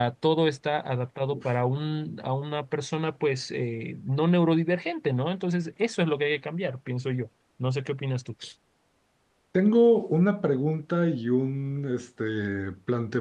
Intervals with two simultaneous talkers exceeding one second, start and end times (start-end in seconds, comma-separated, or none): none